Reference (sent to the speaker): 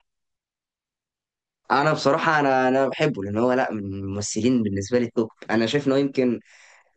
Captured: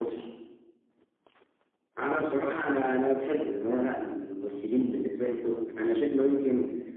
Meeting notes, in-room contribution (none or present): none